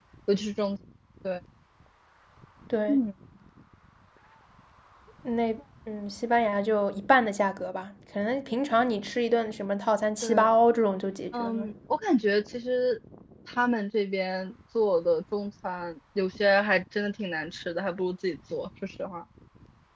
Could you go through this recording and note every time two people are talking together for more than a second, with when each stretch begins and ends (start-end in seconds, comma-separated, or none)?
none